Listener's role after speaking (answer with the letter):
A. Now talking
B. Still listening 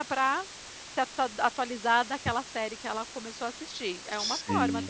A